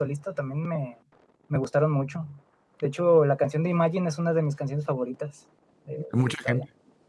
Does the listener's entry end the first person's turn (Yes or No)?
Yes